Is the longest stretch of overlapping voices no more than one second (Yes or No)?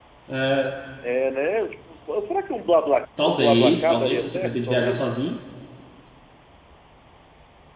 No